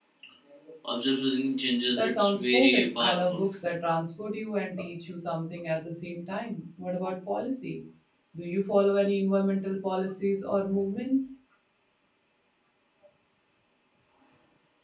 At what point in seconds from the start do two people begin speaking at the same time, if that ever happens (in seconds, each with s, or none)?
1.9 s